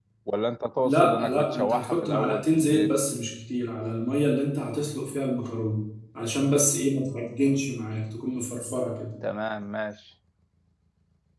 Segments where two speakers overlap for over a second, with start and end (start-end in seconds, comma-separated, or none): 0.8-2.9